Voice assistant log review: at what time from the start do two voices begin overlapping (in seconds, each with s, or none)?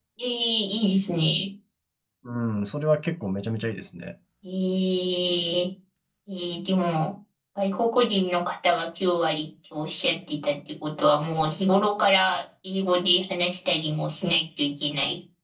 none